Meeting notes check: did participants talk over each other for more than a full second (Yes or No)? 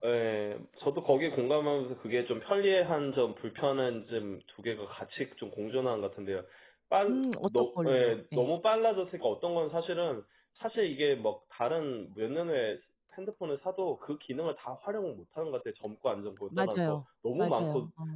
Yes